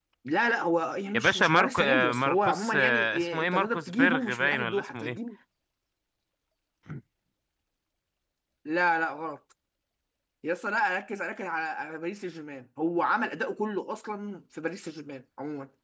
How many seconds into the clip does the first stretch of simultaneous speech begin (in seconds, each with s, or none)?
1.1 s